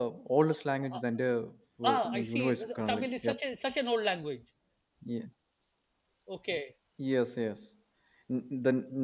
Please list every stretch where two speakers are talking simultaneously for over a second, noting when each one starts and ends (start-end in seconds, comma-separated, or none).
1.8-3.4